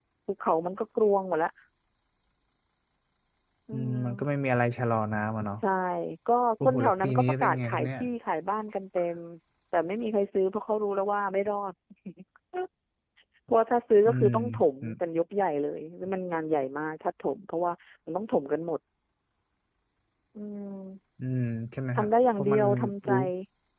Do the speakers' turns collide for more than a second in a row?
Yes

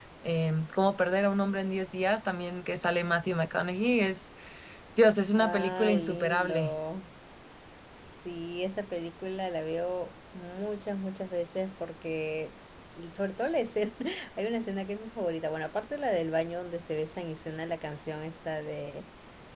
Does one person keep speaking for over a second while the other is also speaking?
Yes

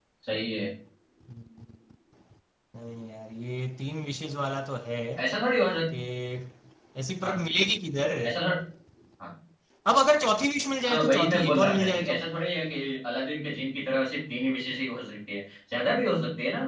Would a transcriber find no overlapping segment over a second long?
No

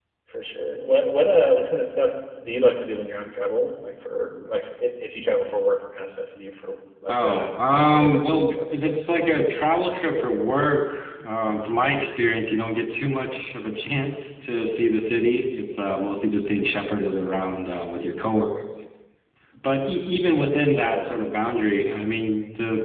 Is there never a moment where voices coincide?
No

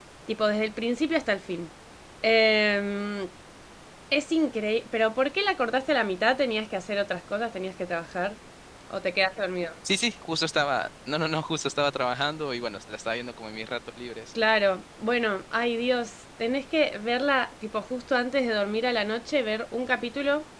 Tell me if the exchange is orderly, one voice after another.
Yes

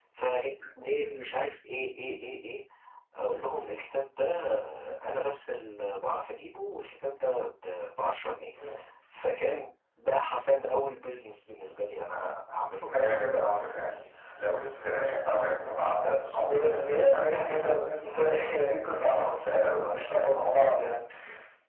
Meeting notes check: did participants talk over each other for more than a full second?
No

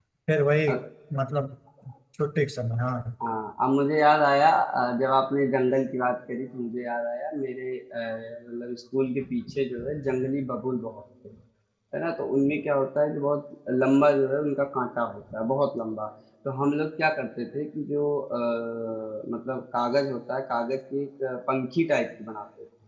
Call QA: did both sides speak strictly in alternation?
Yes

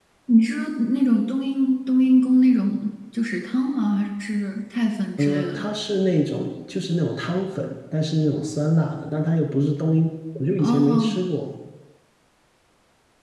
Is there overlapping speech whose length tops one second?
No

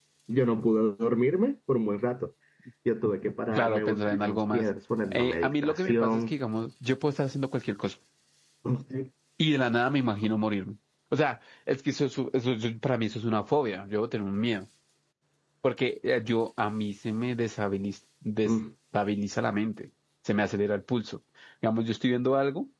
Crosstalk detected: Yes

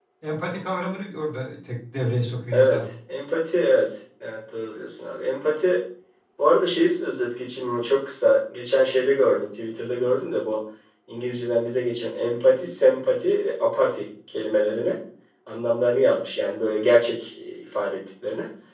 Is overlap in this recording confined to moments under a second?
Yes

